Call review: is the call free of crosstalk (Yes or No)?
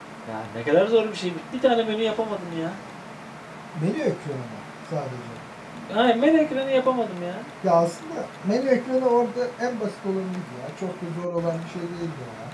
Yes